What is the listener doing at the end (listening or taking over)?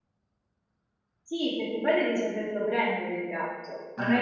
listening